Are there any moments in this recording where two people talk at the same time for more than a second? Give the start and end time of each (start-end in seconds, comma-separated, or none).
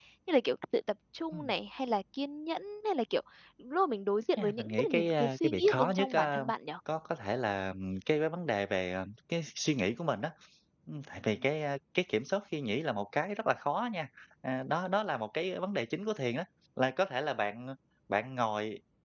4.4-6.4